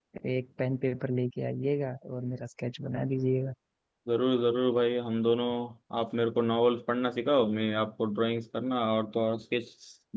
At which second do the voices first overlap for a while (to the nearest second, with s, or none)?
none